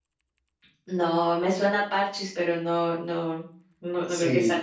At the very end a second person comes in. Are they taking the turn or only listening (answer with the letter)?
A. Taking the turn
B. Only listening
A